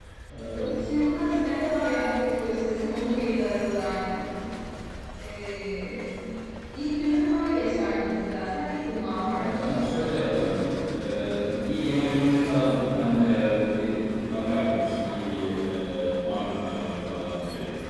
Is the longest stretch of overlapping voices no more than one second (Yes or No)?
Yes